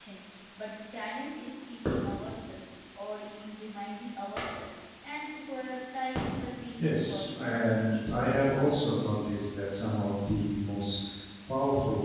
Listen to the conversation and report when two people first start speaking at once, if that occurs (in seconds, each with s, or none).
6.8 s